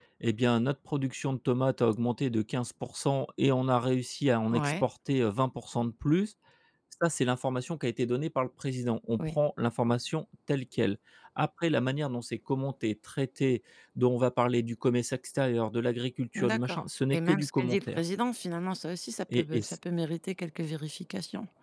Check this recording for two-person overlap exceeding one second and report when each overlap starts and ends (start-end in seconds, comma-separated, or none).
16.4-18.0